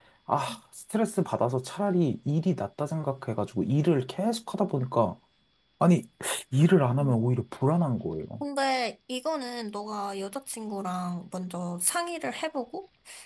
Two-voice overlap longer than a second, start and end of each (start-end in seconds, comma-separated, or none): none